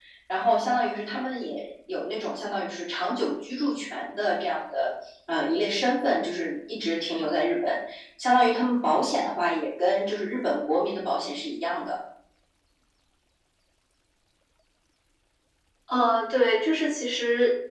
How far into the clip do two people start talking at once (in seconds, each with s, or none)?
none